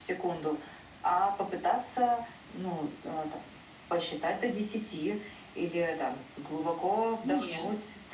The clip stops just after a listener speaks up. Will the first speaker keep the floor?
Yes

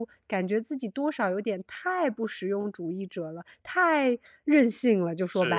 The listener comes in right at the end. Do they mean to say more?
Yes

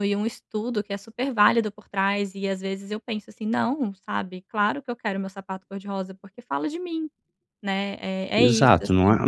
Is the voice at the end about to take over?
Yes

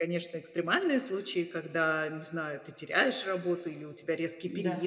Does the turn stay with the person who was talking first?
Yes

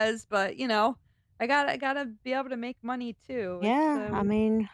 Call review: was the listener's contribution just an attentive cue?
No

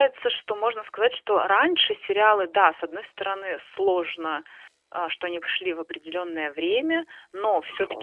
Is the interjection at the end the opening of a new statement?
No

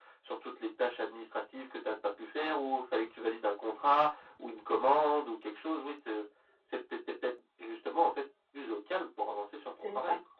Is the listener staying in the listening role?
No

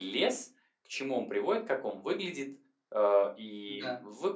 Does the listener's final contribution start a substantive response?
No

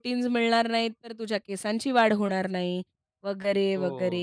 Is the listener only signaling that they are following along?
No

